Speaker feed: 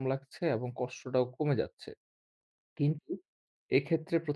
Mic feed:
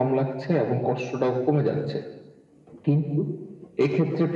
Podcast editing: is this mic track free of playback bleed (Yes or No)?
No